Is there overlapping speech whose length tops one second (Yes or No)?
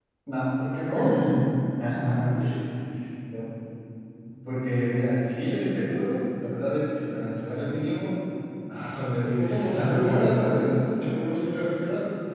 Yes